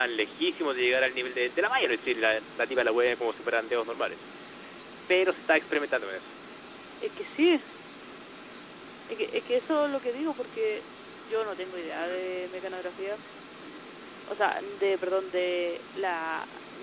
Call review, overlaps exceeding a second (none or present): none